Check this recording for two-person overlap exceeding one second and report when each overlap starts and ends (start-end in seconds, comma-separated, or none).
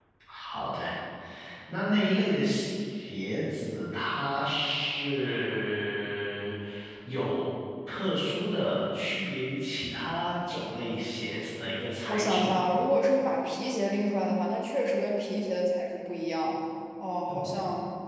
none